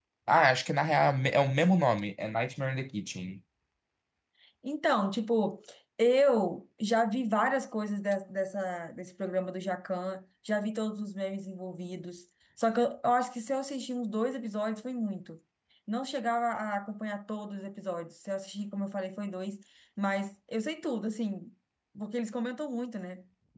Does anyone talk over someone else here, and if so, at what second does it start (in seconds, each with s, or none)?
none